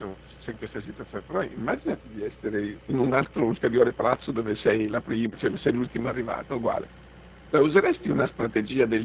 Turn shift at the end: No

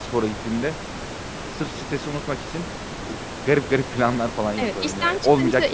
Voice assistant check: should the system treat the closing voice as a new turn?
Yes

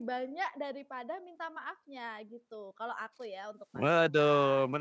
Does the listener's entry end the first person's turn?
Yes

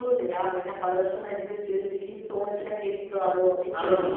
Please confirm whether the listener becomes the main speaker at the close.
Yes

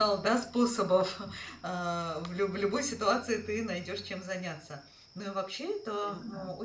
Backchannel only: Yes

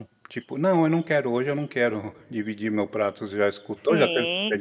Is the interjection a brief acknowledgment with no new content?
No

